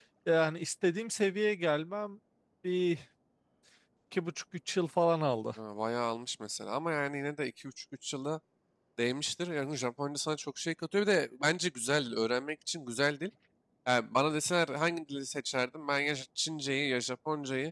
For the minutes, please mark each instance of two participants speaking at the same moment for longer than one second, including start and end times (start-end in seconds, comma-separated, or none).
none